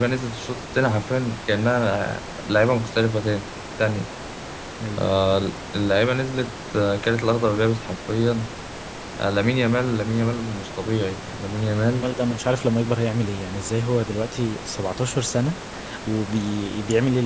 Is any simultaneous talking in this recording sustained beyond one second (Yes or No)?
No